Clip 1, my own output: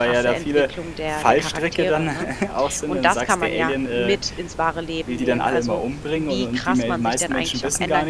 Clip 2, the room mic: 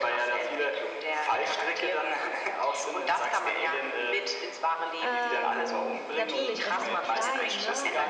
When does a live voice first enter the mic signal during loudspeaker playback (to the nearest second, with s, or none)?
5 s